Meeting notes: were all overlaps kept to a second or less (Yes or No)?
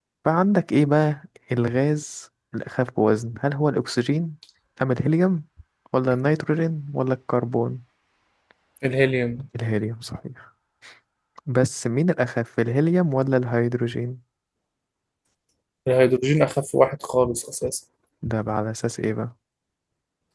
Yes